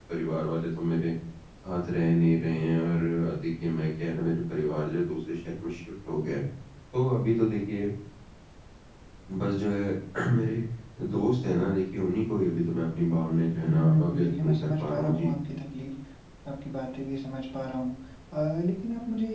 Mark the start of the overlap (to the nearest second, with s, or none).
14 s